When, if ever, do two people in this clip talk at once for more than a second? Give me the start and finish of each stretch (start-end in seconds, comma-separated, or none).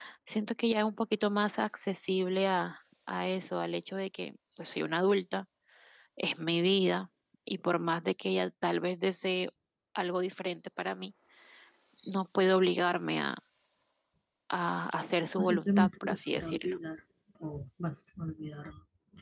15.4-16.8